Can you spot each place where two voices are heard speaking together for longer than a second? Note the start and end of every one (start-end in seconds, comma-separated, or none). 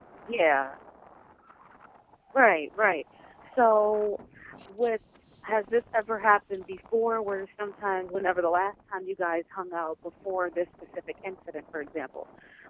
none